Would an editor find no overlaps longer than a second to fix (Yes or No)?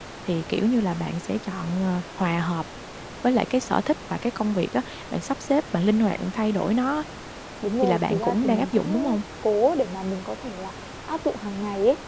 No